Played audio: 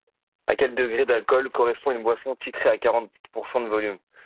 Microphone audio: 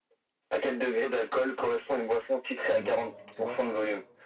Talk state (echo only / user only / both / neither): both